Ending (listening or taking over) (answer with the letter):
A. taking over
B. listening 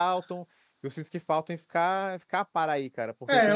A